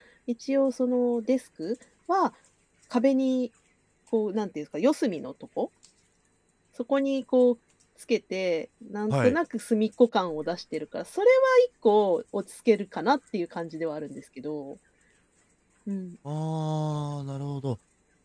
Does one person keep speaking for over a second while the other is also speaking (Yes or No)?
No